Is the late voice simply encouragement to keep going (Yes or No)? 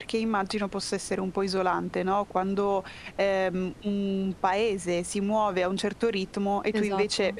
Yes